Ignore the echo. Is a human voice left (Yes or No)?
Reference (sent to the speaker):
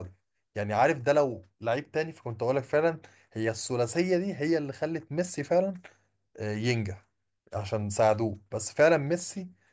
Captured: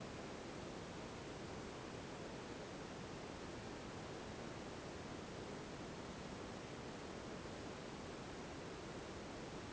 No